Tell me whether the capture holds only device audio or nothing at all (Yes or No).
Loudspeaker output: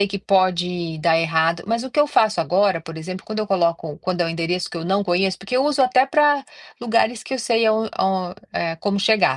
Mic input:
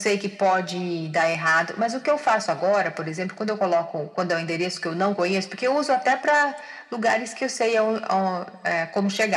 Yes